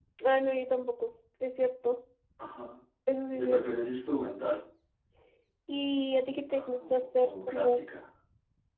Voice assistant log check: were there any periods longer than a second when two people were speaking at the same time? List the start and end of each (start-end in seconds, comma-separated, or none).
6.5-7.8